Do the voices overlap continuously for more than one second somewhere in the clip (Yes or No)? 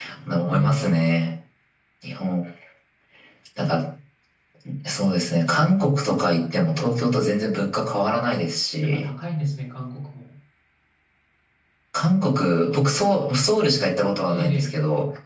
No